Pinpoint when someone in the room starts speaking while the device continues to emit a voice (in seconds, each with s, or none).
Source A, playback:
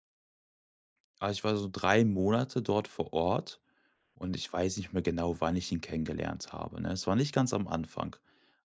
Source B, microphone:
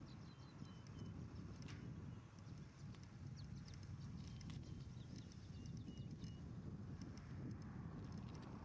none